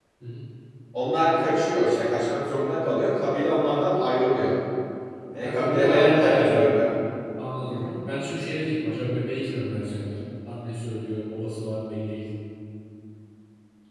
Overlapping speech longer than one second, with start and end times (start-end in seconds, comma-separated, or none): 5.4-6.6